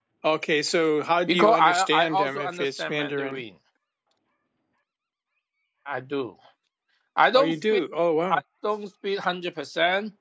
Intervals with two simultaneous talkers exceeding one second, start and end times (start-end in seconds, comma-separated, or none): 1.3-3.4